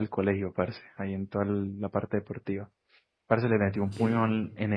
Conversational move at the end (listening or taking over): listening